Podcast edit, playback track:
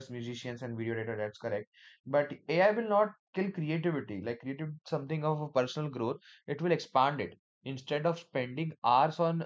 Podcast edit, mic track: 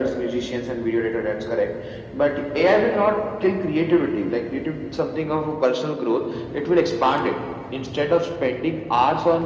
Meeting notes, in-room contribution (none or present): none